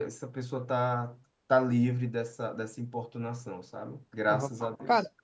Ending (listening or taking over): taking over